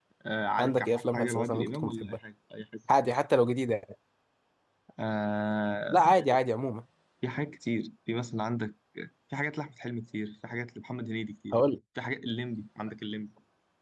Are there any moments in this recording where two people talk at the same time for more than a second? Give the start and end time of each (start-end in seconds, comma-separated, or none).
0.6-2.2